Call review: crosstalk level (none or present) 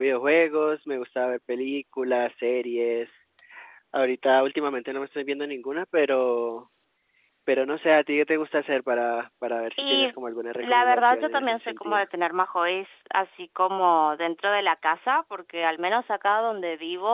present